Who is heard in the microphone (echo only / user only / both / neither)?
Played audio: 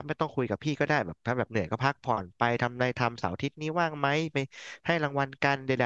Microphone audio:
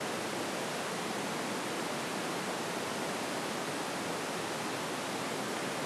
neither